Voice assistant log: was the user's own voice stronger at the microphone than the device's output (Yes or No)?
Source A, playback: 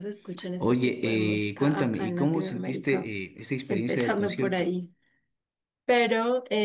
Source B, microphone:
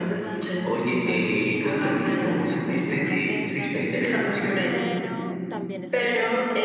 No